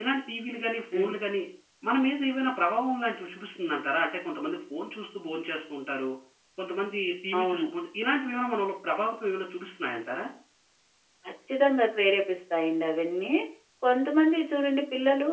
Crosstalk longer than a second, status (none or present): none